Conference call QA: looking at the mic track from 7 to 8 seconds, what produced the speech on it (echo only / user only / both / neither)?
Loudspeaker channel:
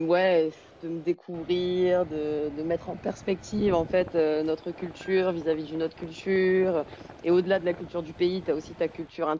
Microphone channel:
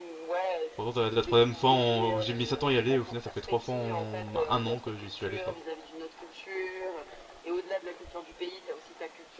echo only